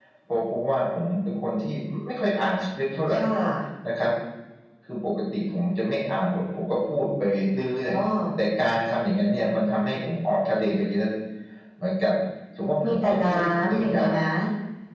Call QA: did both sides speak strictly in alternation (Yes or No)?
No